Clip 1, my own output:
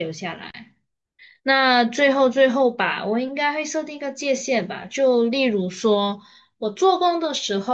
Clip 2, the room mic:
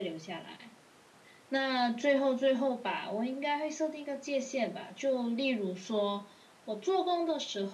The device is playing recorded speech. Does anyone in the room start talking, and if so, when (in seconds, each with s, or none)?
none